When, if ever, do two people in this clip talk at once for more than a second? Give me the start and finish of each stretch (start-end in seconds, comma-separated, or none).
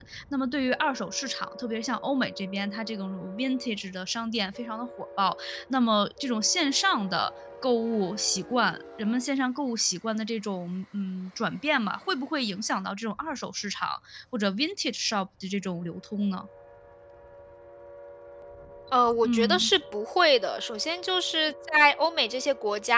none